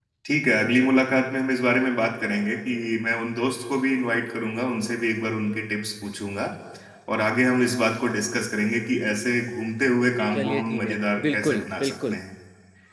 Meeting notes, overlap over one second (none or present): present